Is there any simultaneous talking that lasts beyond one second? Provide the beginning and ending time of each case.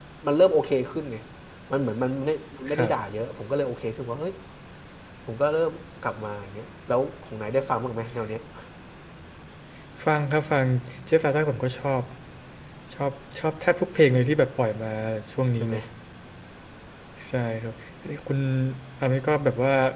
none

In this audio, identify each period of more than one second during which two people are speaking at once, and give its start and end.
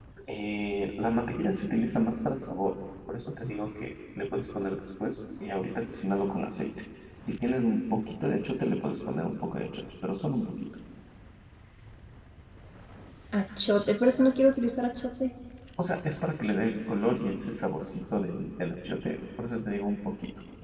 none

